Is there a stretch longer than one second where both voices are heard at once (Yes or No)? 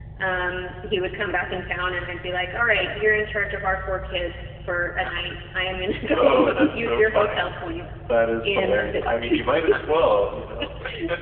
Yes